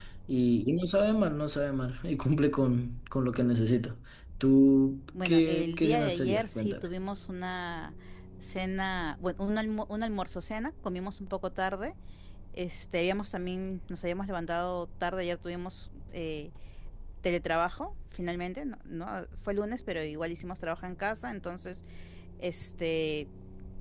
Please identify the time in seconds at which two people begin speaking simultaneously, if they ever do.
5.2 s

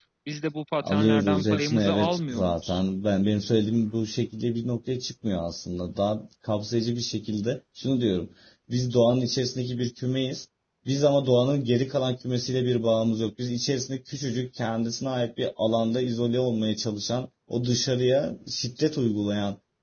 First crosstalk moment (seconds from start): 0.8 s

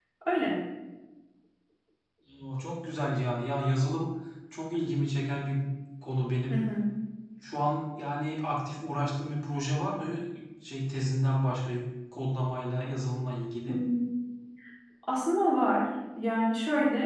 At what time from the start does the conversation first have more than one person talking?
none

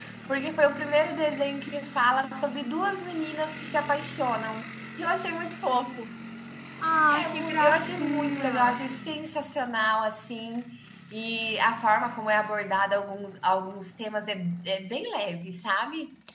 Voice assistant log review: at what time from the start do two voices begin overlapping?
7.1 s

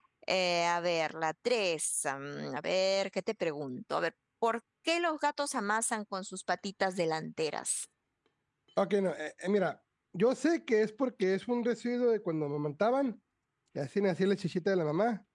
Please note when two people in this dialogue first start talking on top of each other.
none

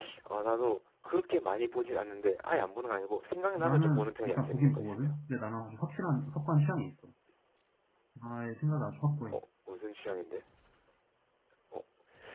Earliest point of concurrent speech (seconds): 3.6 s

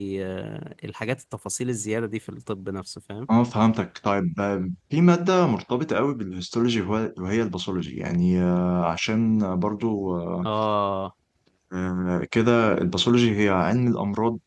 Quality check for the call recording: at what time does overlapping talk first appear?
none

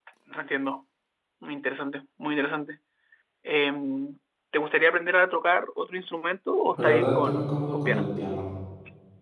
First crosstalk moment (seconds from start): 6.8 s

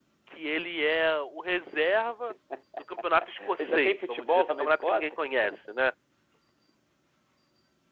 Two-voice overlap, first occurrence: 3.6 s

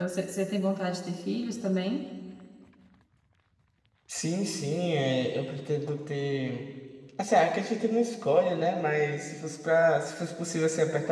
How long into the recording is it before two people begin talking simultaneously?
none

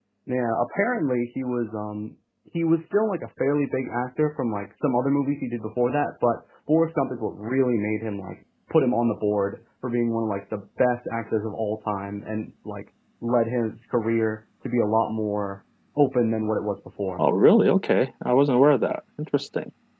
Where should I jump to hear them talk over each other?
none

